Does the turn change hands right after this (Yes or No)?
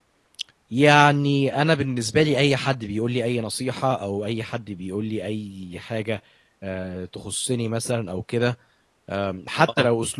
No